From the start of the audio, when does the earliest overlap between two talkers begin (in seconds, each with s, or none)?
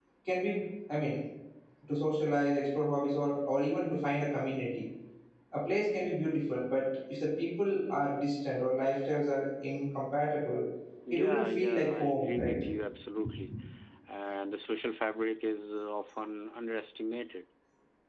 11.1 s